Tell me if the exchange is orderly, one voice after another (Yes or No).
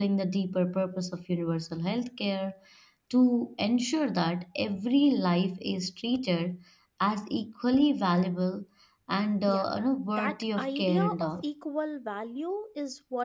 No